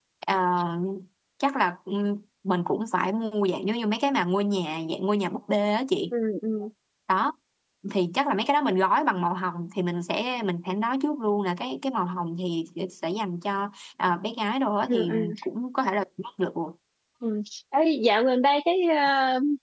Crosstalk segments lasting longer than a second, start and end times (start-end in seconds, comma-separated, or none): none